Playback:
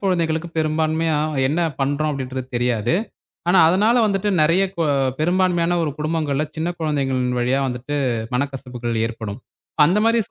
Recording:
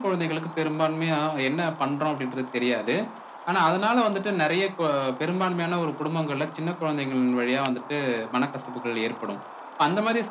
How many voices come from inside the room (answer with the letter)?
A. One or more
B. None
B